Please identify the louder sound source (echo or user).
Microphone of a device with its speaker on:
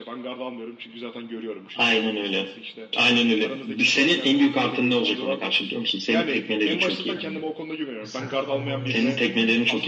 echo